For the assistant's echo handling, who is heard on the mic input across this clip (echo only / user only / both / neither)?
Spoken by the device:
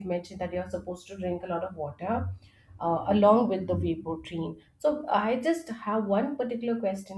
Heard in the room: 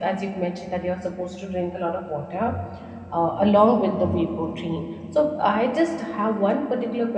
echo only